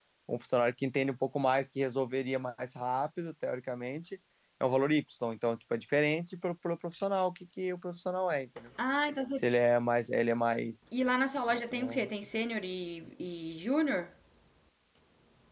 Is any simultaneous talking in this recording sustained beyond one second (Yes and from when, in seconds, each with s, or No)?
No